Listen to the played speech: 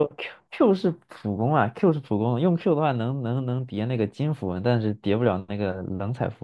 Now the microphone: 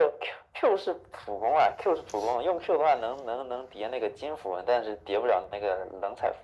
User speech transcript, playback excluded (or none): none